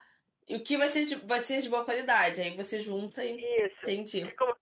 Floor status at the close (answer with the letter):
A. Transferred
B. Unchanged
A